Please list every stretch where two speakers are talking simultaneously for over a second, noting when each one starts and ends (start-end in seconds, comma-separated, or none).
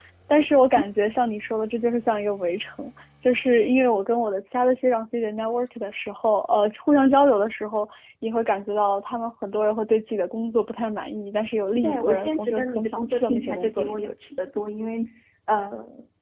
11.8-14.1